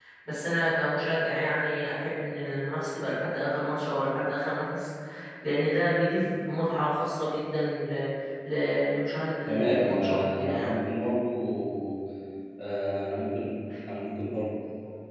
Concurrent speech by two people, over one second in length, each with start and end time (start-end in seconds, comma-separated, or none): 9.5-10.8